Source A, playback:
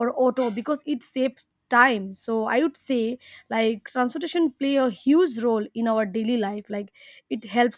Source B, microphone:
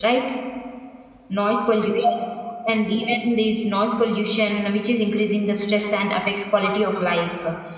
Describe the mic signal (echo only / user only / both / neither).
user only